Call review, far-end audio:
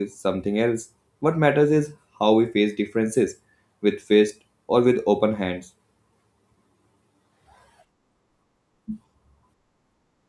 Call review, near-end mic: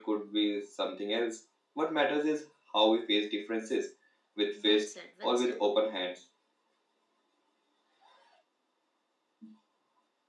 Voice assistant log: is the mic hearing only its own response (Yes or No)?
No